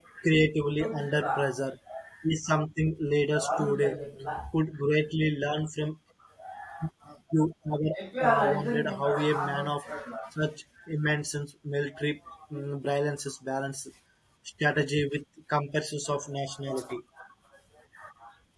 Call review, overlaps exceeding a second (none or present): present